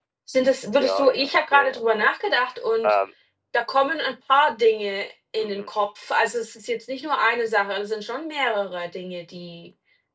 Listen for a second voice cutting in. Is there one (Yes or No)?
Yes